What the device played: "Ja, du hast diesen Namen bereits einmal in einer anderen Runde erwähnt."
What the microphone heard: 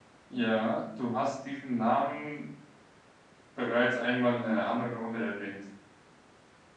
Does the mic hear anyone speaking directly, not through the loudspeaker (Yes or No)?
No